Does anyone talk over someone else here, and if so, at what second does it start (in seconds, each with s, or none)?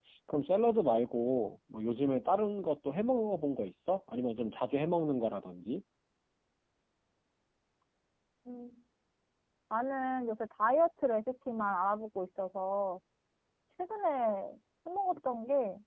none